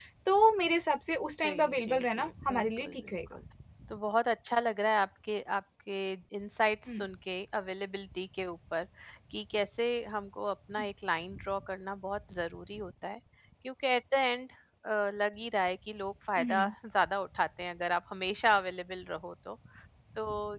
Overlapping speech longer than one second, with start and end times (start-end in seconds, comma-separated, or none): 1.4-3.1